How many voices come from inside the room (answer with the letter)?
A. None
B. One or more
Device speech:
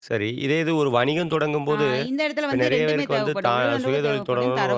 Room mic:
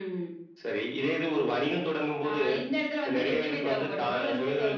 A